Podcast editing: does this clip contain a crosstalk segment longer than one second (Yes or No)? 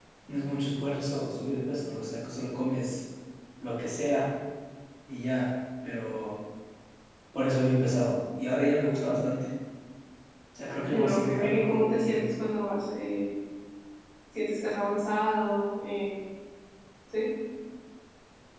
Yes